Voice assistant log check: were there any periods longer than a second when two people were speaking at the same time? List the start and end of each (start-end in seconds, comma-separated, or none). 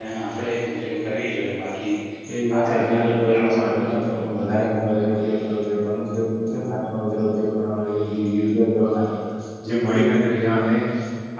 2.5-4.2